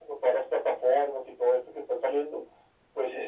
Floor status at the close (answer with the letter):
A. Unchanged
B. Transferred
A